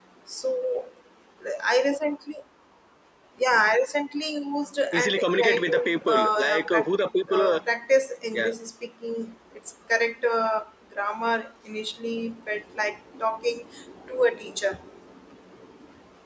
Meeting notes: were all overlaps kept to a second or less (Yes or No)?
No